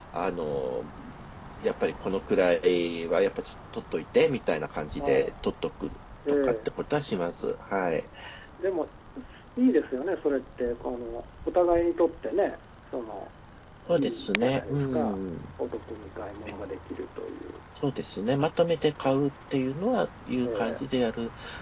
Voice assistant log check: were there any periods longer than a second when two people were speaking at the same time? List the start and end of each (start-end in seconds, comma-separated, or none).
13.9-15.2